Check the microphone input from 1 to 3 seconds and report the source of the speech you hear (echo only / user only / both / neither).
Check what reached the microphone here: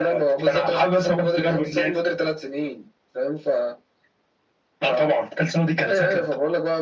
echo only